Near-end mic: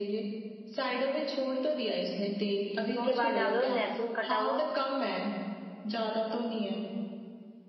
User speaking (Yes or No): Yes